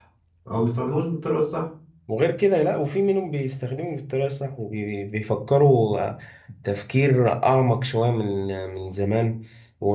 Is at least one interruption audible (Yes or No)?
No